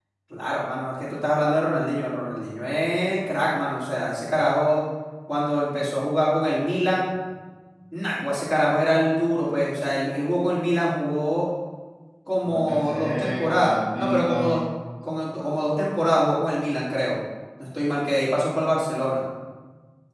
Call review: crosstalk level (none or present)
present